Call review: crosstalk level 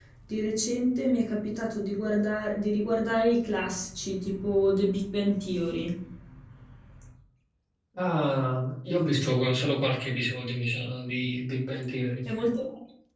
none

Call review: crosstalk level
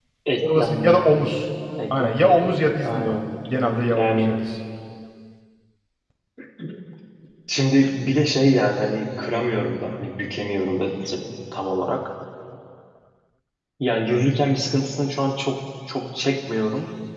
present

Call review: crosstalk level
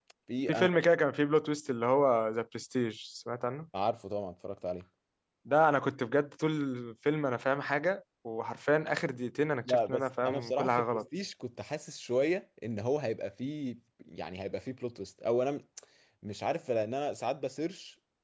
present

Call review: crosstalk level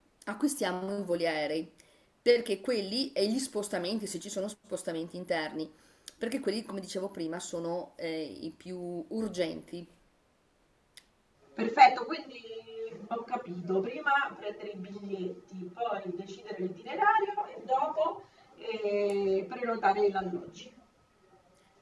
none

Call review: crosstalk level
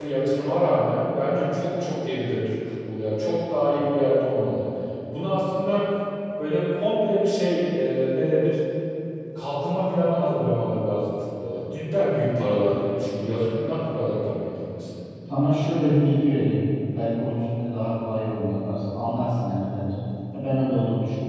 none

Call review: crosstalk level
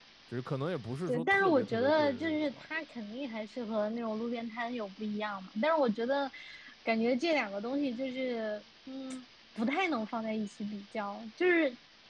present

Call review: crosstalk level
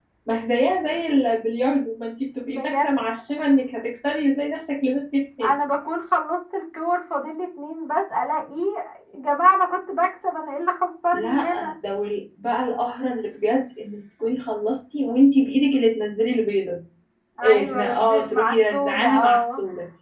present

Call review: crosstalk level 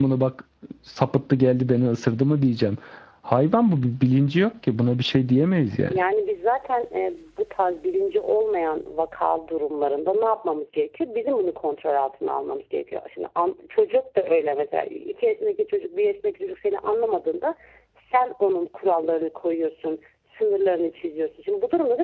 none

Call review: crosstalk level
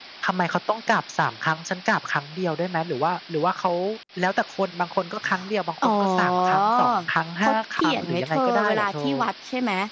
present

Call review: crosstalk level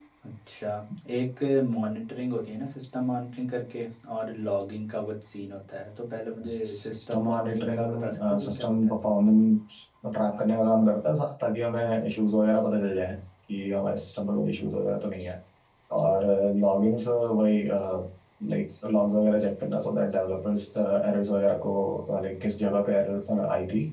present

